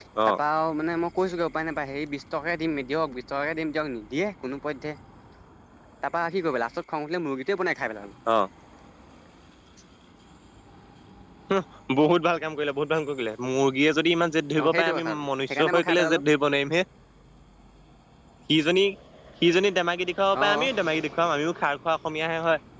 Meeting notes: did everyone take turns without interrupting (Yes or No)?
No